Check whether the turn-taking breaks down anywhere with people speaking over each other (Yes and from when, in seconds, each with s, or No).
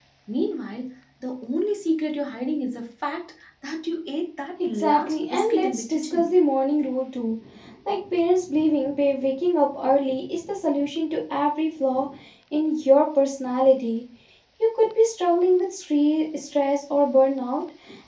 Yes, from 4.6 s